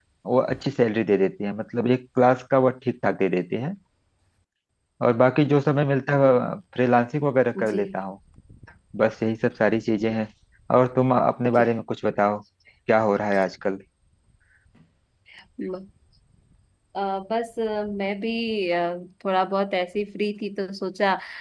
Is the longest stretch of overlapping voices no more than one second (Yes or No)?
Yes